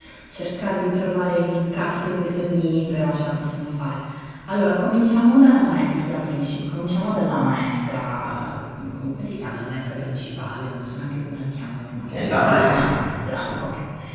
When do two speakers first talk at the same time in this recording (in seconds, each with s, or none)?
12.1 s